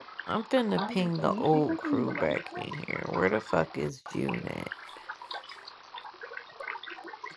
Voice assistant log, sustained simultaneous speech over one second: present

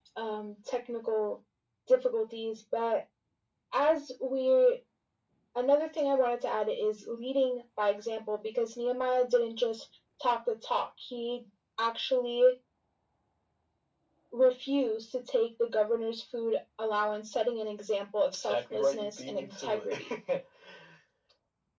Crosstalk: present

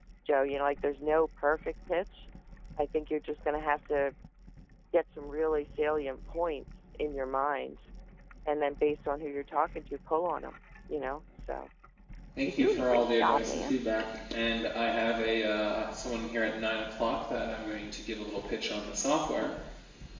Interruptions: present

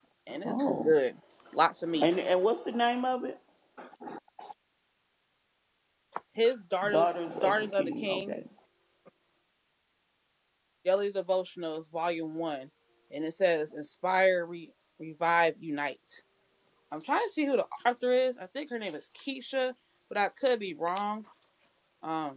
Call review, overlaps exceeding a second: present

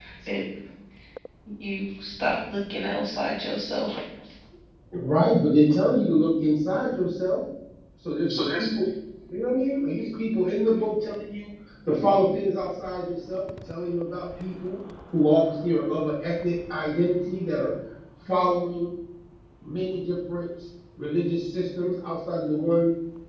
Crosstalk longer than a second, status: none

